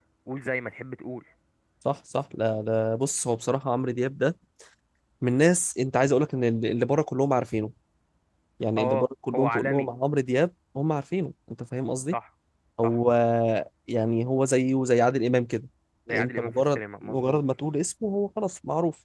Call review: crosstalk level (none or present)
present